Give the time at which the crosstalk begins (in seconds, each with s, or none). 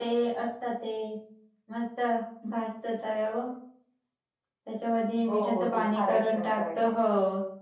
5.3 s